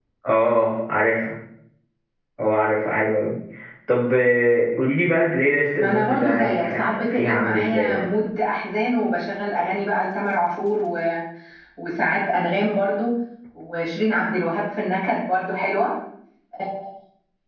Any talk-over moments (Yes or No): Yes